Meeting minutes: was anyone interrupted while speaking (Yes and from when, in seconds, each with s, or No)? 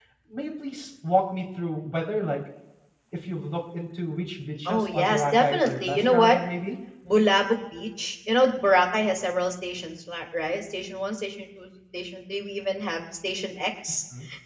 Yes, from 4.6 s